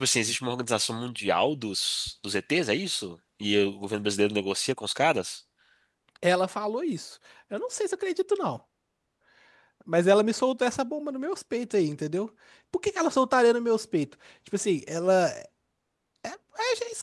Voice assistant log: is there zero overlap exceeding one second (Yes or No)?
Yes